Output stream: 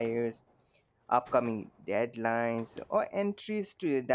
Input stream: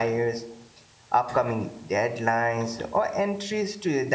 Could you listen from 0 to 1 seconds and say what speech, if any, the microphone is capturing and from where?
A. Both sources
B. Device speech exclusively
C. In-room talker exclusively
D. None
B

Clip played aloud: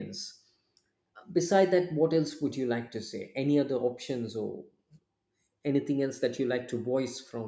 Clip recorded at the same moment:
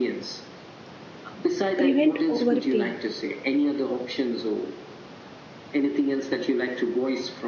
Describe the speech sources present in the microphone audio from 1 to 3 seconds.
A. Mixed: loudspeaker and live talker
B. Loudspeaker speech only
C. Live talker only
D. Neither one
A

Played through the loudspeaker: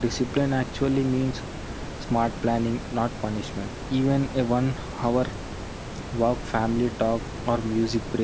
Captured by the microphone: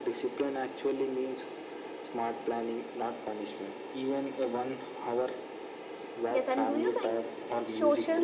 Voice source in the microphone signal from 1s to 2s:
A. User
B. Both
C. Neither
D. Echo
D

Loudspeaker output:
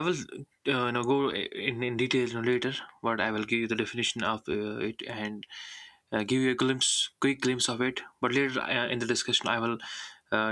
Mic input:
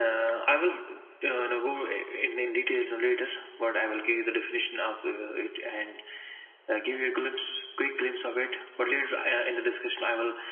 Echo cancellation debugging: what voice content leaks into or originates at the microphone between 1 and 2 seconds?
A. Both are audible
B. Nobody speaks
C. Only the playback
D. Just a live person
C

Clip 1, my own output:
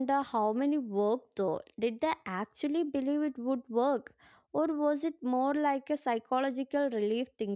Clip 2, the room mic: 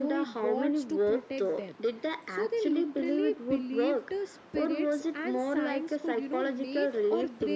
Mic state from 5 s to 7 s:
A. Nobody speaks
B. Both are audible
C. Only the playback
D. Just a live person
B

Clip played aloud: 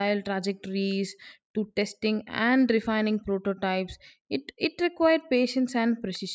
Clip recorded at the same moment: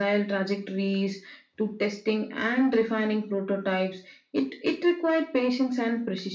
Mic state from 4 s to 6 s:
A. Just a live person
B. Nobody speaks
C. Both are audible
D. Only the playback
D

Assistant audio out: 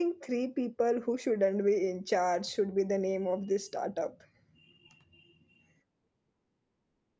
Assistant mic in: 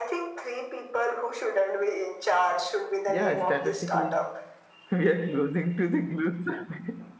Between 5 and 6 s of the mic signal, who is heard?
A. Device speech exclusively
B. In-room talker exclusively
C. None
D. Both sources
B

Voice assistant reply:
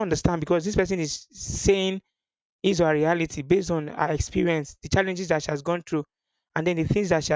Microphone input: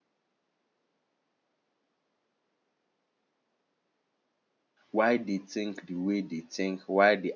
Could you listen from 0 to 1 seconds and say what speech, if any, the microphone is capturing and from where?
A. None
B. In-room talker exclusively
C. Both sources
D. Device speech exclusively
A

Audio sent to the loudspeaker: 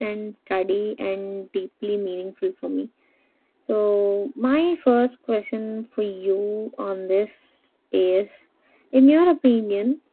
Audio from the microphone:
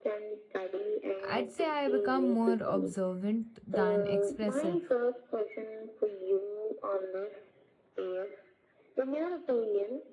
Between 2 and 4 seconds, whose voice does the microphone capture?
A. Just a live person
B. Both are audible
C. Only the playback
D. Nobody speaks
B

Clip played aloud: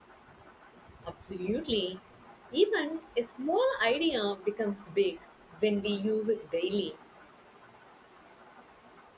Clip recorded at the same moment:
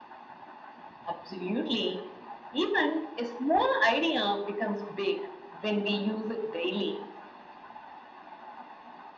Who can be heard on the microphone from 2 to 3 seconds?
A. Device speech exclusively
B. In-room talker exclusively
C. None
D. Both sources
A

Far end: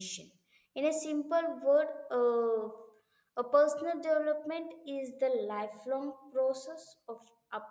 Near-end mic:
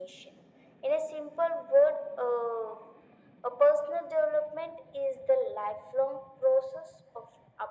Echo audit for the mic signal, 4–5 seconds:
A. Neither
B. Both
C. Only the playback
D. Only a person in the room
C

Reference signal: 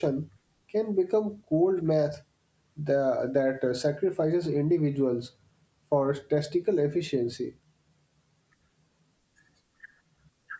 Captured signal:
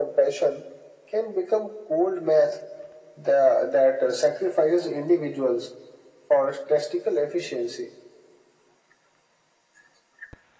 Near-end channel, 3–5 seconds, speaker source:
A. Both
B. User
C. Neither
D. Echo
D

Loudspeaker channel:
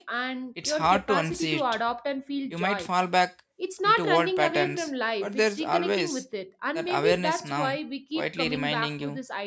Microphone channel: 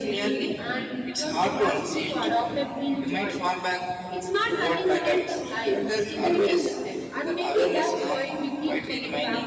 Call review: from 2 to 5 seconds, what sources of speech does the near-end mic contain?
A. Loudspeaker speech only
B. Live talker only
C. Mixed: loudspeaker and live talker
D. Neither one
A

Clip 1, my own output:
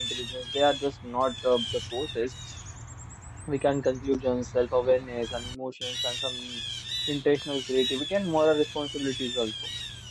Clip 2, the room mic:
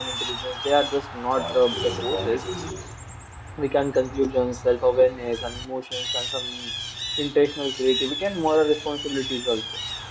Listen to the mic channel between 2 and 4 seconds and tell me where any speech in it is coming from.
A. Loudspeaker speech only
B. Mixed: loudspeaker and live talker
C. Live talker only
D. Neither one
B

